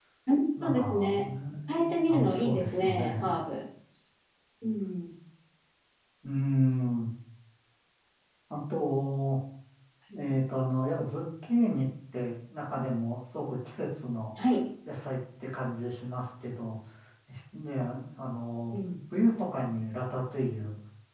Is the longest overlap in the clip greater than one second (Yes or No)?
Yes